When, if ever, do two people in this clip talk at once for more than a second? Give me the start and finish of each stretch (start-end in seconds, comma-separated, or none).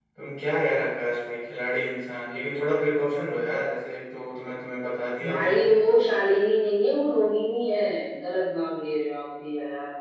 none